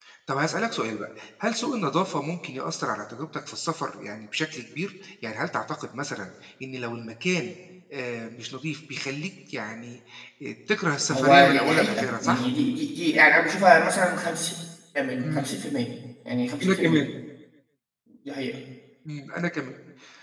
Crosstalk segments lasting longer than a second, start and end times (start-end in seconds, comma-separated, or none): 11.1-12.5